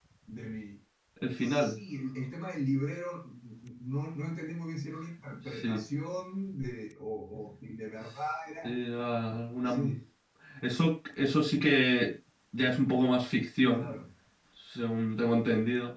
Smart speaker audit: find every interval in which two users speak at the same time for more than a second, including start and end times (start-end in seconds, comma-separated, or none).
none